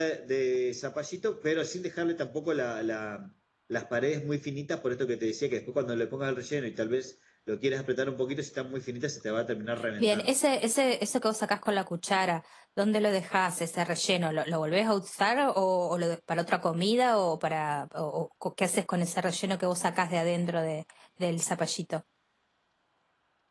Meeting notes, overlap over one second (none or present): none